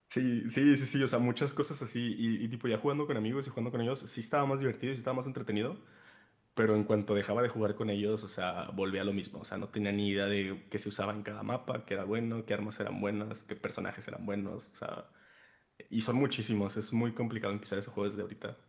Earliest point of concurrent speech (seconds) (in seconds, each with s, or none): none